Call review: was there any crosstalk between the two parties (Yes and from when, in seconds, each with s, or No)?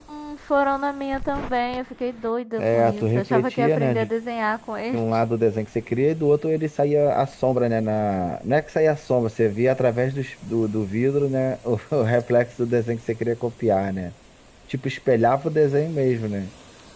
Yes, from 2.6 s